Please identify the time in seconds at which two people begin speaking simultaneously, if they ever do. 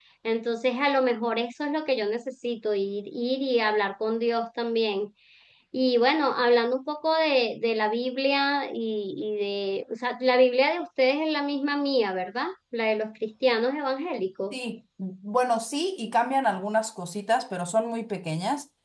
none

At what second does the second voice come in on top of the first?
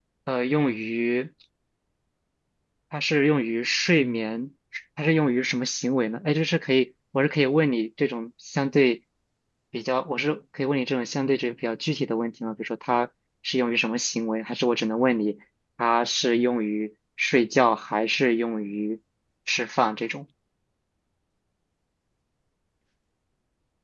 none

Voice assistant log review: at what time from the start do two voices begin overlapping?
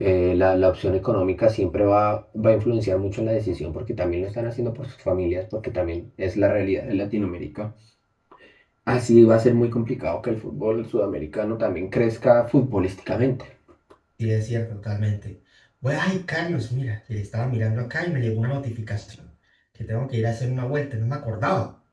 none

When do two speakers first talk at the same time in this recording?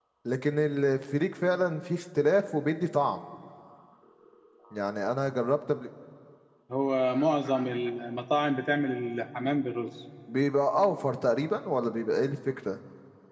none

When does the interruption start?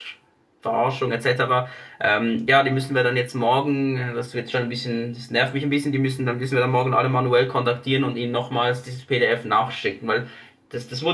none

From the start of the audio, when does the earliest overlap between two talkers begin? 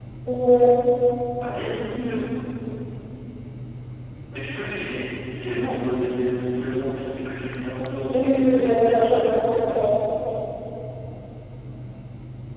8.1 s

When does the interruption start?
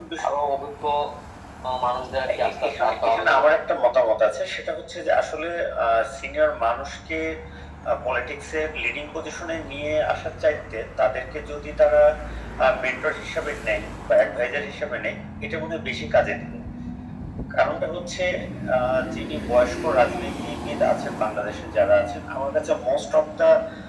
2.3 s

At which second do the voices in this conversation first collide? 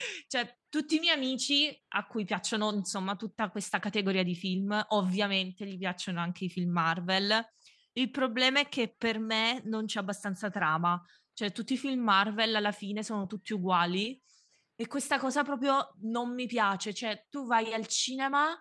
none

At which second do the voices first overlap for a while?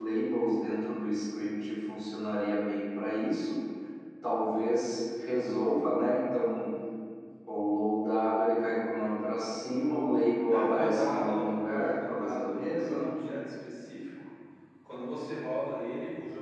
10.5 s

